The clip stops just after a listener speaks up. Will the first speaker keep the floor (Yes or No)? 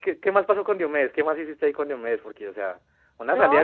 No